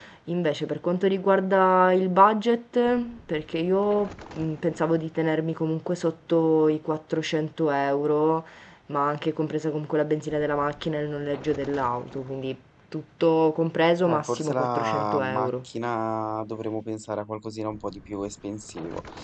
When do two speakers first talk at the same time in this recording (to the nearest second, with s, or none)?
14 s